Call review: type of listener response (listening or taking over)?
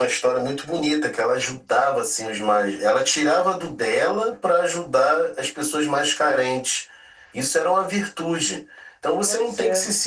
listening